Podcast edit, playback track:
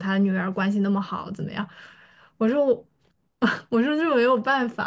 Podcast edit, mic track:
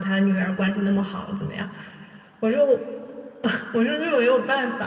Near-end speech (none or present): none